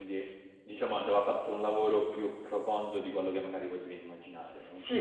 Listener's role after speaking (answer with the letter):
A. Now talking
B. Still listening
A